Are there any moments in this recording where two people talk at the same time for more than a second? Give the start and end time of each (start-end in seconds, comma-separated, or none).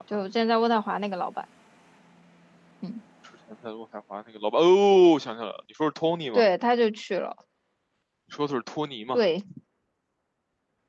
none